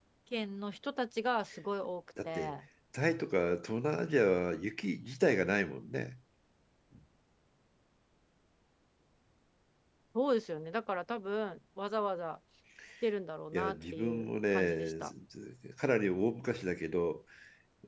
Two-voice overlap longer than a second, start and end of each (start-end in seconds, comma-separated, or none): 13.5-14.9